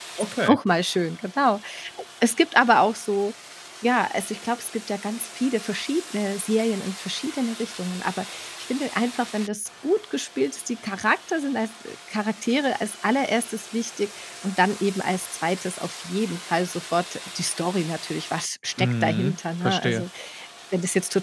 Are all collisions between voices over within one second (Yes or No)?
No